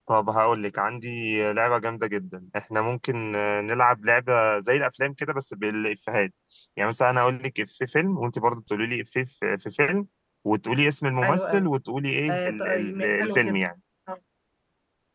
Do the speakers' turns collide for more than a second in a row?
Yes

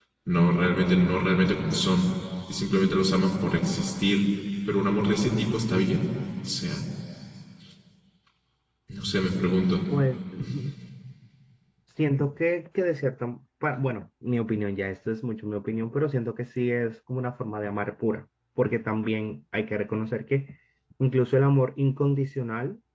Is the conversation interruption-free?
Yes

